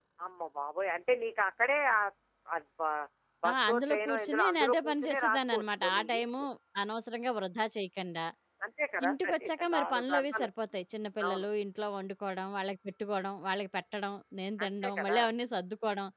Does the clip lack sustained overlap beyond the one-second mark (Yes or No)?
No